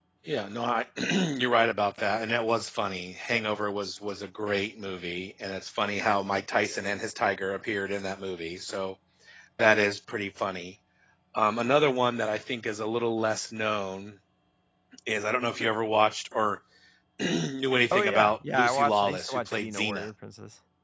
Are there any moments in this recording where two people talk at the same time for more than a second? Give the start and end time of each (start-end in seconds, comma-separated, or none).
17.9-20.1